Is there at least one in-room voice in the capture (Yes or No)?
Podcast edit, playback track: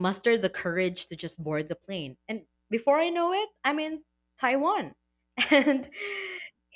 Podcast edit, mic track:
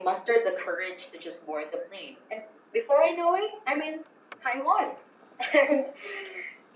No